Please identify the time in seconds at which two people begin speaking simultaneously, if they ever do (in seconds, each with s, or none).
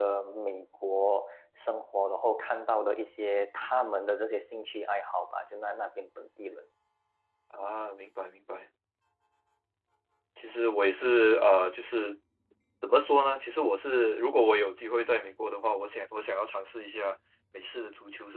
none